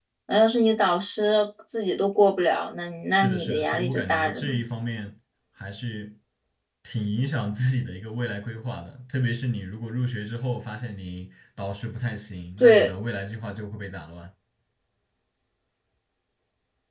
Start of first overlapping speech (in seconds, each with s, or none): 3.1 s